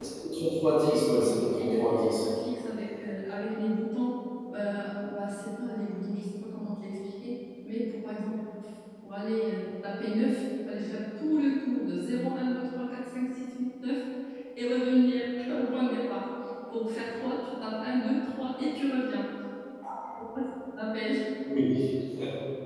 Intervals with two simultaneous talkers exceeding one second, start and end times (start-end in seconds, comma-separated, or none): 0.9-2.2